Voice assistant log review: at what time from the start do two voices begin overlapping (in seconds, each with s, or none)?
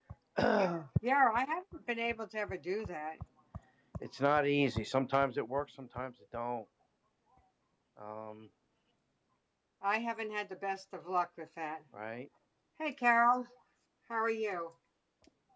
none